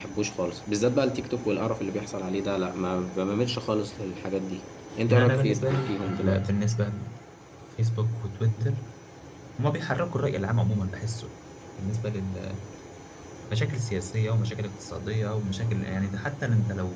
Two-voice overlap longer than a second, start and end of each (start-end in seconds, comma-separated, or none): 5.1-6.5